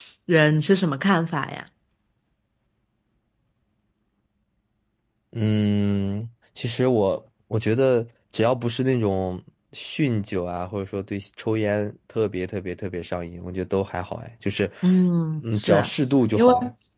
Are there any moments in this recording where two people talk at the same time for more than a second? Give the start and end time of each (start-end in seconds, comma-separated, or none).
none